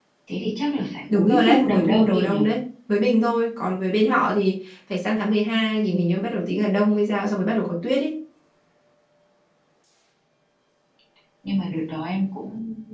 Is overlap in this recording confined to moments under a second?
No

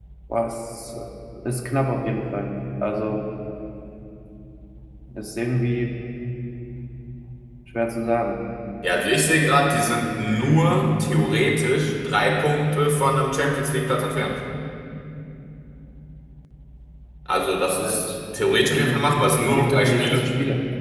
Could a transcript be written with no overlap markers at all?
No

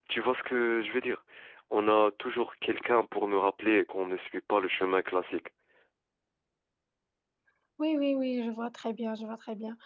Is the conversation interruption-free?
Yes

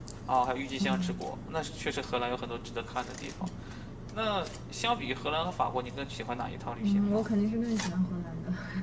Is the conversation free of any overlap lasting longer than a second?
Yes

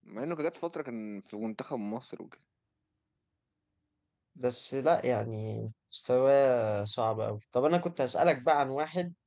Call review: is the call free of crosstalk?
Yes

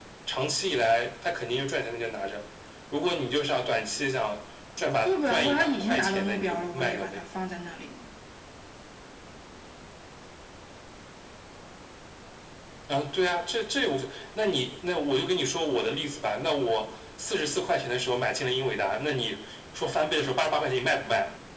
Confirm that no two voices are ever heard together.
No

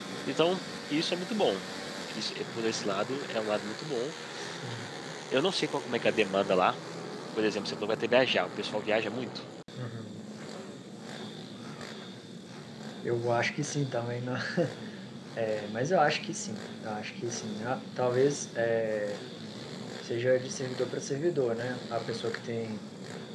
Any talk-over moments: No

